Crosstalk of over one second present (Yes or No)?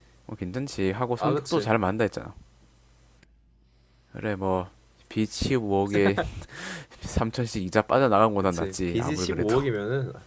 Yes